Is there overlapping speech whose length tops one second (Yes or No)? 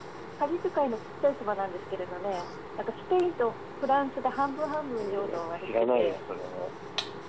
Yes